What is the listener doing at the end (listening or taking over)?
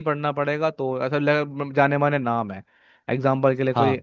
listening